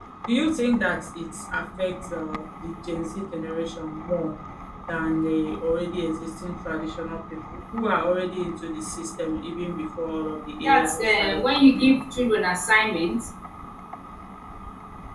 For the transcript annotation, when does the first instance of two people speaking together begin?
11 s

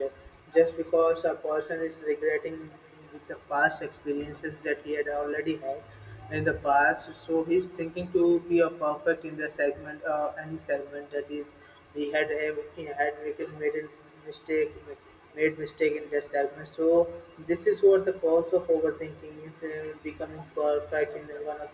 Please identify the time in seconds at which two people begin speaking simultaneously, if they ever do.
none

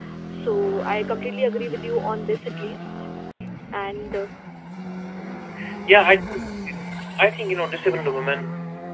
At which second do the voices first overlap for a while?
none

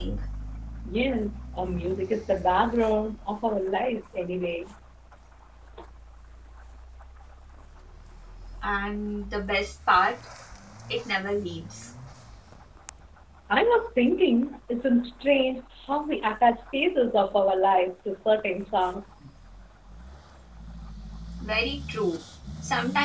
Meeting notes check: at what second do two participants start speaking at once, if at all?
none

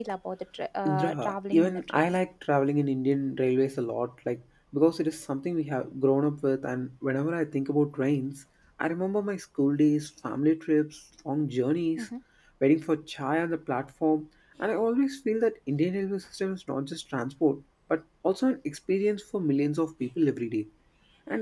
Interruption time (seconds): 1 s

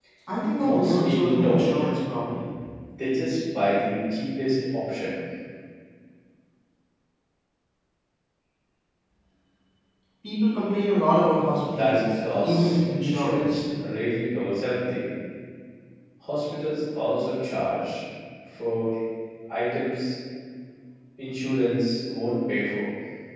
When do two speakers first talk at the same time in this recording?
1 s

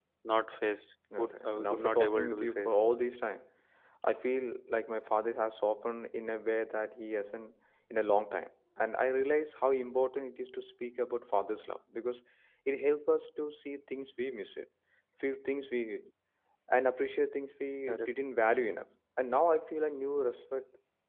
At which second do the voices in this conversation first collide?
1 s

